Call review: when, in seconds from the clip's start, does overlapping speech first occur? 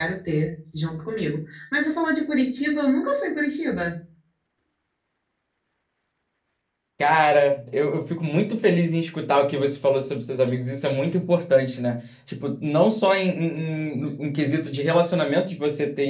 none

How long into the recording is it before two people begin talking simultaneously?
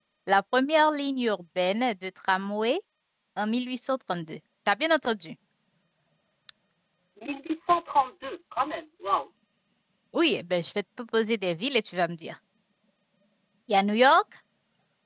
none

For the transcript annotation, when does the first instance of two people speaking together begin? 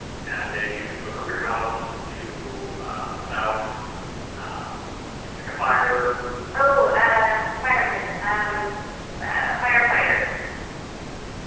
none

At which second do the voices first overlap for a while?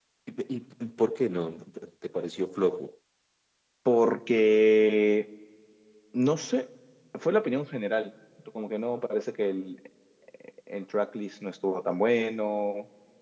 none

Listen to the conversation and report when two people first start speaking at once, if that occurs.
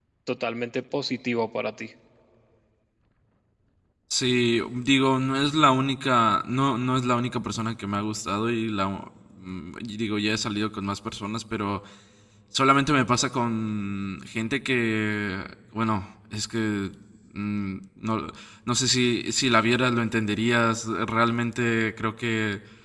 none

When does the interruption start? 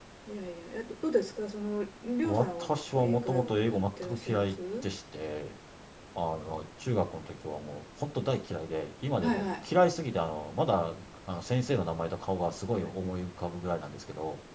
2.2 s

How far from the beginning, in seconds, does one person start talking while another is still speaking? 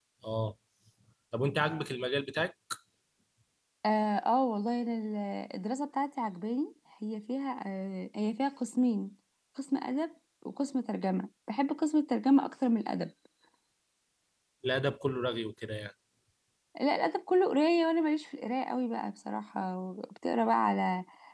none

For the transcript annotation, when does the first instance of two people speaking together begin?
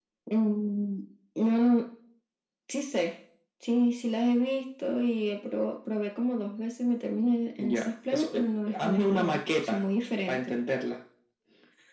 7.6 s

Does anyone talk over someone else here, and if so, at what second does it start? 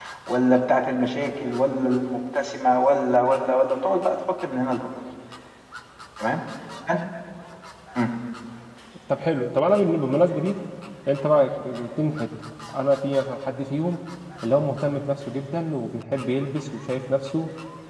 none

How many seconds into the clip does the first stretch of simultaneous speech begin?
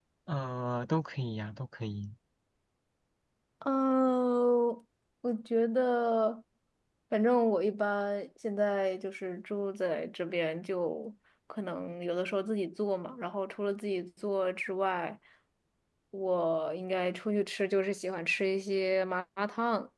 none

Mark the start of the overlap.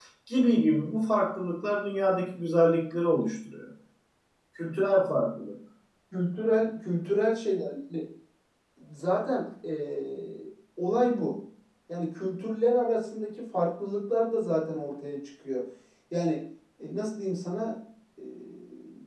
none

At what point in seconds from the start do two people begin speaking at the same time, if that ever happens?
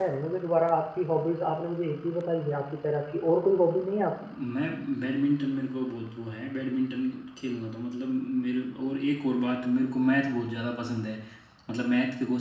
none

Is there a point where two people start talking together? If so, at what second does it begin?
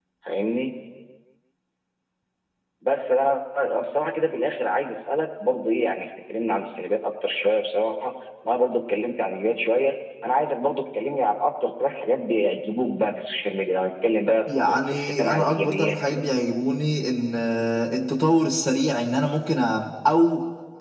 14.5 s

